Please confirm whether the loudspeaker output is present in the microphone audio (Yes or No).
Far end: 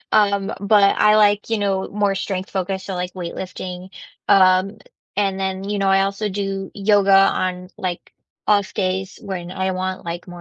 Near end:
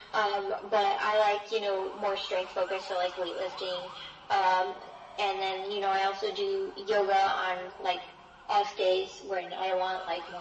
Yes